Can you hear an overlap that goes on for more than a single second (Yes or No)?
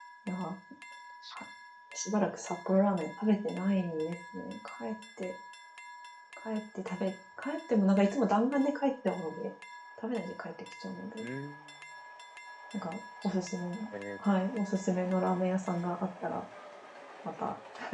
No